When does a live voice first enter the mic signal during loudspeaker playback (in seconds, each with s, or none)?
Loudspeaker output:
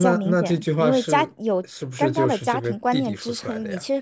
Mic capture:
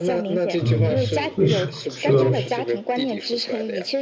0.6 s